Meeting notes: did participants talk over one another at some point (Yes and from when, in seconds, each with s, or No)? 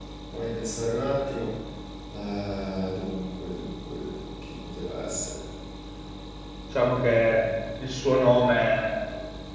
No